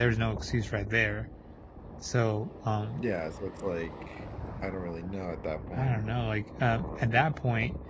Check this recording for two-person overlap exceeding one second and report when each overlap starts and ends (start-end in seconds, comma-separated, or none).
none